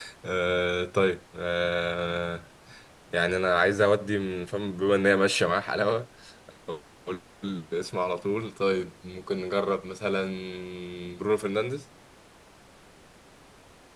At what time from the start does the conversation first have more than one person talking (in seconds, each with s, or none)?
none